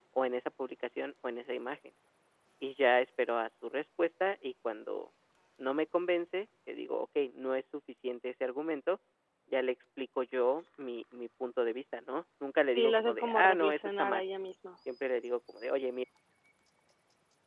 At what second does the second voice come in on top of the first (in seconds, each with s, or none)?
12.7 s